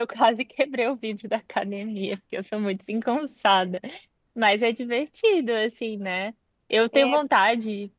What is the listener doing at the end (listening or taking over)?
listening